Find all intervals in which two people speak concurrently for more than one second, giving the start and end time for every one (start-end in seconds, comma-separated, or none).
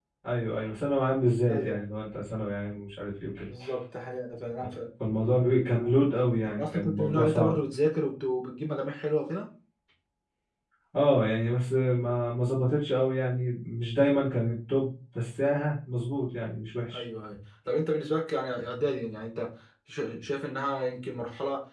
6.2-7.6